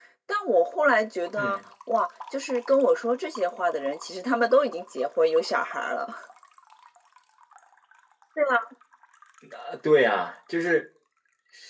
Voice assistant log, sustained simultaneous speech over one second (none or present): none